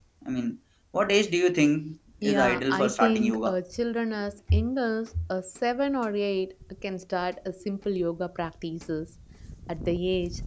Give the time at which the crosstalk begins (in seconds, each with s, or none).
2.2 s